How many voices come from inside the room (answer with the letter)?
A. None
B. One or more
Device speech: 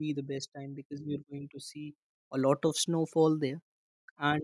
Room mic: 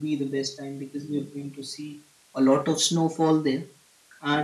A